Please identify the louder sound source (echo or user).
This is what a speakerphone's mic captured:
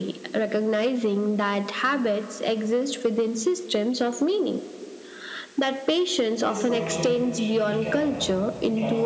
echo